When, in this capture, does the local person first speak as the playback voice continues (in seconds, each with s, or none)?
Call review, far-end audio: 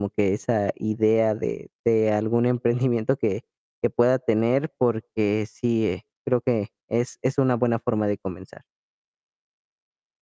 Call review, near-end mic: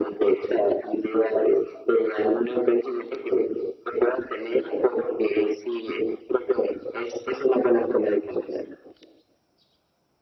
none